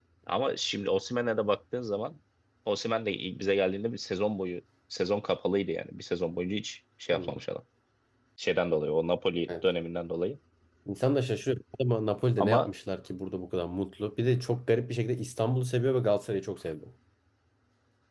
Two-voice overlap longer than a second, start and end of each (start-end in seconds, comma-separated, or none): none